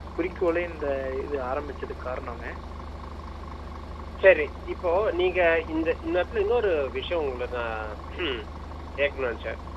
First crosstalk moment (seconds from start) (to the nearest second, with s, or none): none